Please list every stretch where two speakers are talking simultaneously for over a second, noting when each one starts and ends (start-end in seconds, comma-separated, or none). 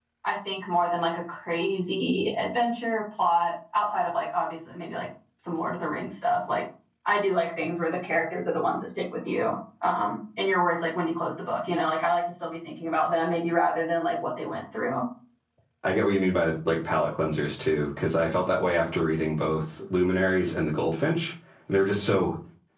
none